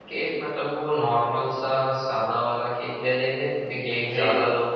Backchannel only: Yes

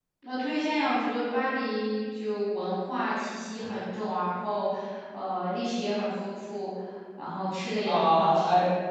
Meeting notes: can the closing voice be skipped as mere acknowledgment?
No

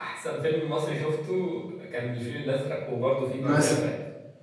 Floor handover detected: Yes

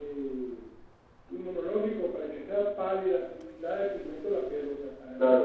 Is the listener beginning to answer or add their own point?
Yes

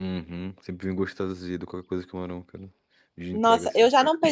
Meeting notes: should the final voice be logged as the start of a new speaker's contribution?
Yes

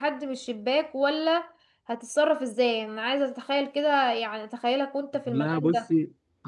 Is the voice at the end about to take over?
Yes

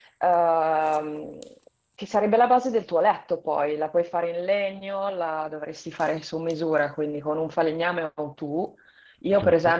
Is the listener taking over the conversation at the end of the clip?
No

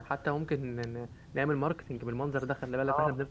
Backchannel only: No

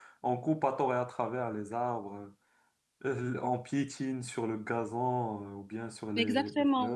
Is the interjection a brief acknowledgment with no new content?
No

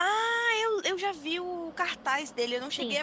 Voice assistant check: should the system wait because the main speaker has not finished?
No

